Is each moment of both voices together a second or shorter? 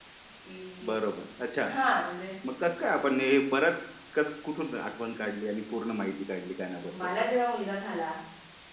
Yes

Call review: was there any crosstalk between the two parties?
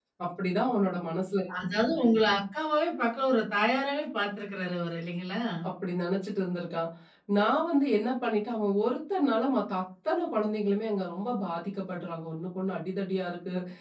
No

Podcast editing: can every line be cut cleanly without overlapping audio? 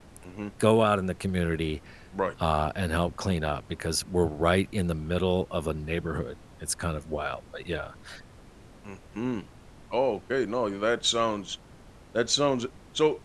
Yes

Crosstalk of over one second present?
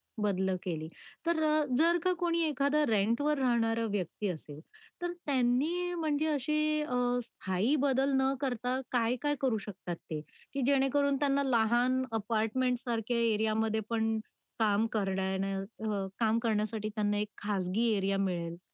No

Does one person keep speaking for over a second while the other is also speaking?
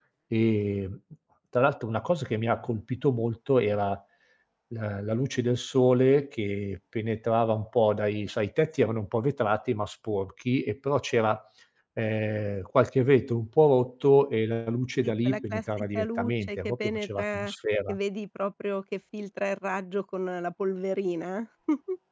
Yes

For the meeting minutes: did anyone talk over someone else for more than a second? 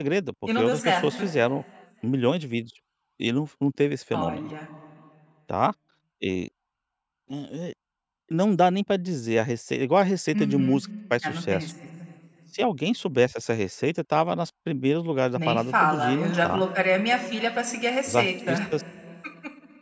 Yes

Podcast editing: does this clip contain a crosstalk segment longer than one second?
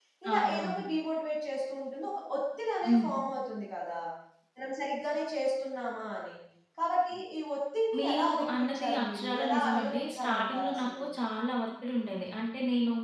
Yes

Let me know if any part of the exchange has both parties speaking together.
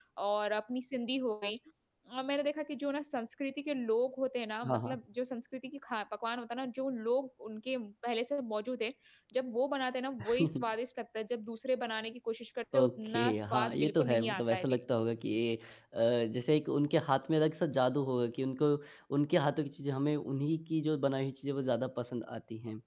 Yes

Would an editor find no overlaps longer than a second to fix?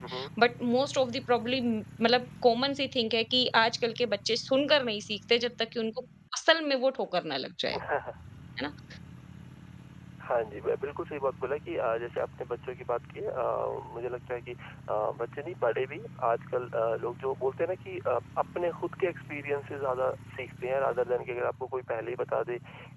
Yes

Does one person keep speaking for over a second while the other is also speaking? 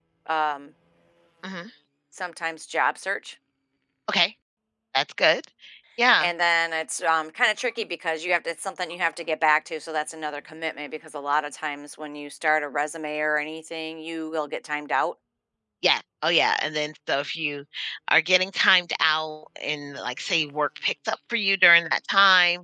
No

